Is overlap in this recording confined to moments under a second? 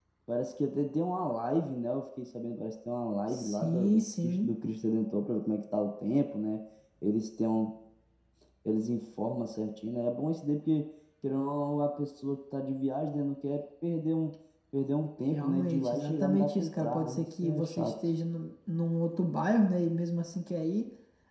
No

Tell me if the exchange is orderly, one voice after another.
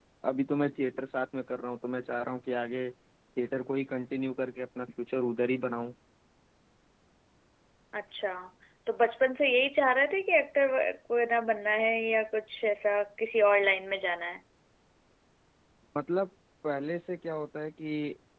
Yes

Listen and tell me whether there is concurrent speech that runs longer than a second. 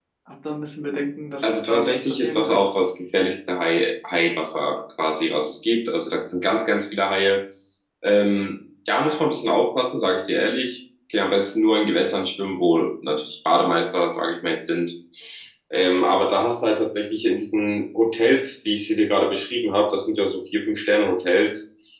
Yes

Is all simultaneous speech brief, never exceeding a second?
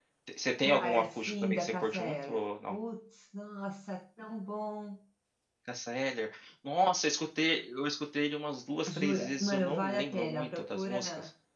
No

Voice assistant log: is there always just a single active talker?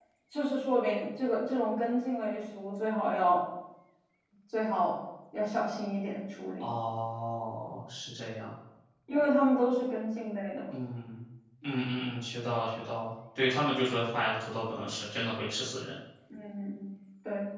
Yes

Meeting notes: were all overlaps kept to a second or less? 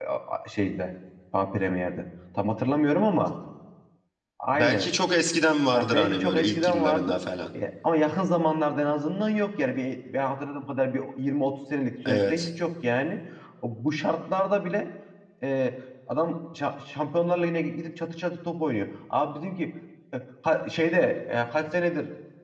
No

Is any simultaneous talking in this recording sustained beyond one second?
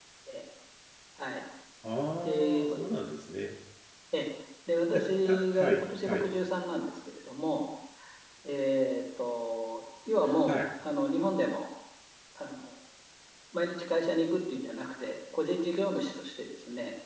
Yes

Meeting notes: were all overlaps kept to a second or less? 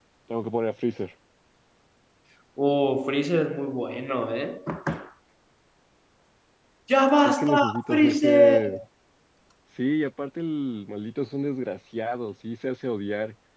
No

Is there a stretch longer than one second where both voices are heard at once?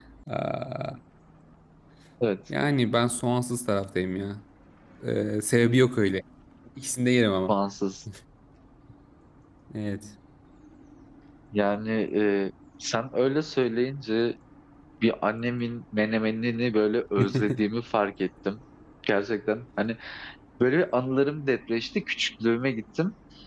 No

